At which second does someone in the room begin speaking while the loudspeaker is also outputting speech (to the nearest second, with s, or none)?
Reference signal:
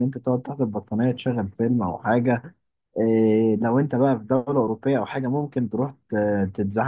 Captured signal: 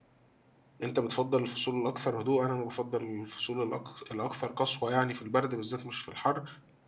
1 s